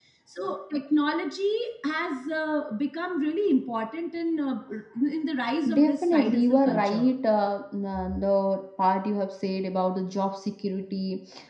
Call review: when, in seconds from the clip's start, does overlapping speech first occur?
5.7 s

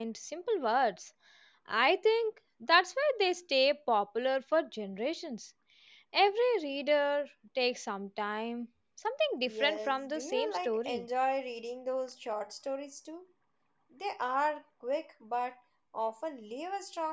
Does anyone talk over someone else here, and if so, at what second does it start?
9.5 s

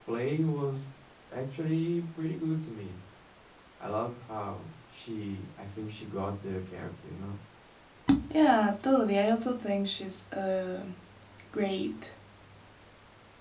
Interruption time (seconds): none

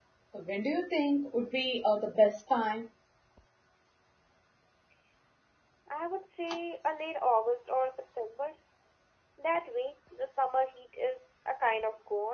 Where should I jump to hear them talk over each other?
none

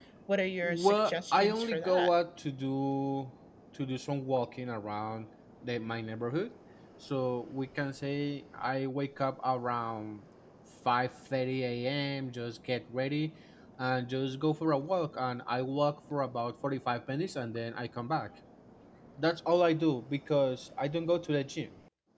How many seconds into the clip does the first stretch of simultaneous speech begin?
0.6 s

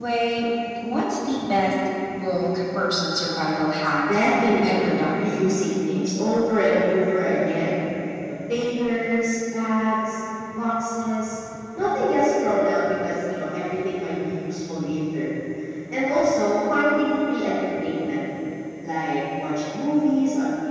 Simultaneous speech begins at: 4.1 s

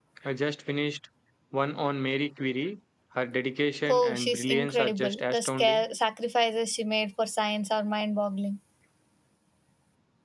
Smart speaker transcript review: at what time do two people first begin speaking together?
3.9 s

